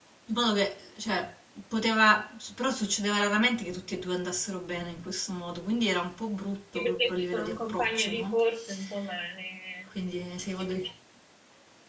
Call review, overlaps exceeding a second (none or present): present